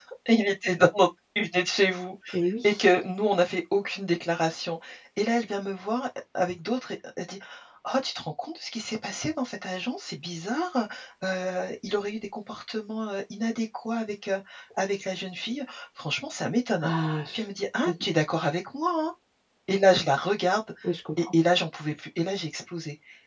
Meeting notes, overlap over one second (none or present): none